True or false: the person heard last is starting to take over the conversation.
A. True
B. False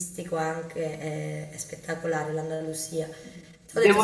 B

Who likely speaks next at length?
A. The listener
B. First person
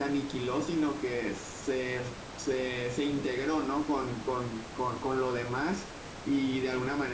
B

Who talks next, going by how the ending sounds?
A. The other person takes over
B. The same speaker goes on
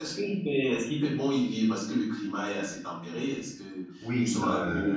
A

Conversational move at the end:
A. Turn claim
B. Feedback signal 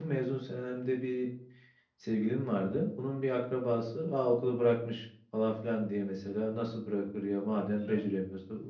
B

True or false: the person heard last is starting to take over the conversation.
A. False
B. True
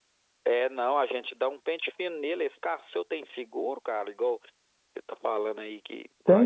B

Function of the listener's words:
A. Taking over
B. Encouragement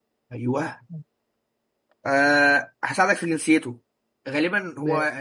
B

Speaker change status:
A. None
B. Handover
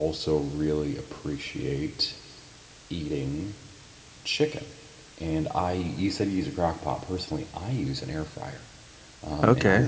A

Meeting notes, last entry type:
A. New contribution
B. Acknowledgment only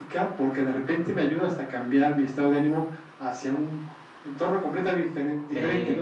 B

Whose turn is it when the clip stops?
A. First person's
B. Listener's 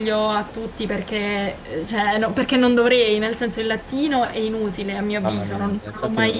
B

